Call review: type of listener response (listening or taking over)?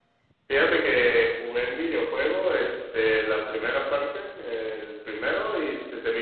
listening